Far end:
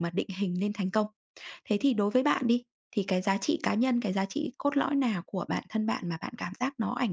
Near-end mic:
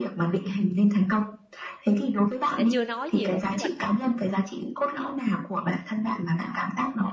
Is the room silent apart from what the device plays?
No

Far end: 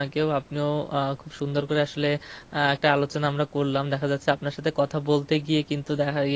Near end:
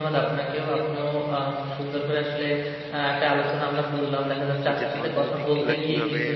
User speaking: Yes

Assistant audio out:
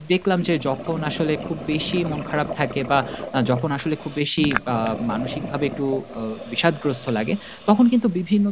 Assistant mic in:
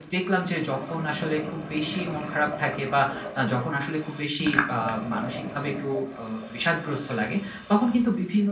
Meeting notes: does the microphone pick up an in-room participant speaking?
No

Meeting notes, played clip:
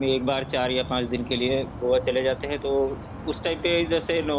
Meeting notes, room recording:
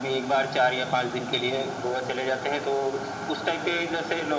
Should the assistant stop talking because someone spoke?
No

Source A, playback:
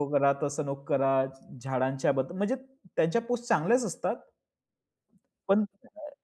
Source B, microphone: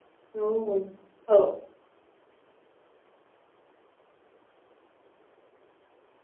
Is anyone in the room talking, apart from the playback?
Yes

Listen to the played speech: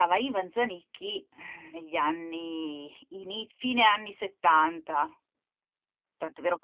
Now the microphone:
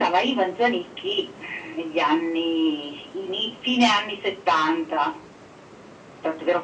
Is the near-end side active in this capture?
No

